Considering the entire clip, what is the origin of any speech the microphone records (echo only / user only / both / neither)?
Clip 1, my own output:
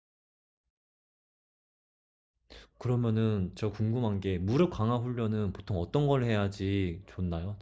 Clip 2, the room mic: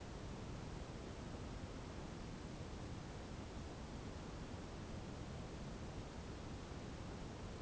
neither